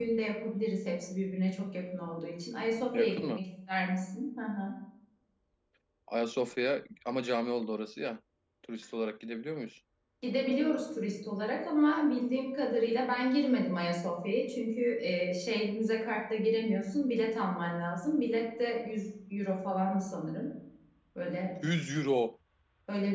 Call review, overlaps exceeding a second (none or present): none